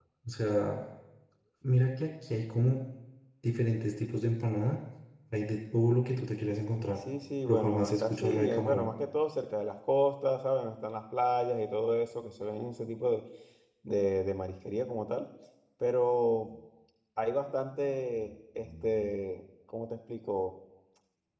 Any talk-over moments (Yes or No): Yes